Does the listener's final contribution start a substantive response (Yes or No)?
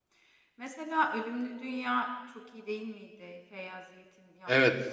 Yes